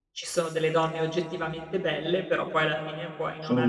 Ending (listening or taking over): listening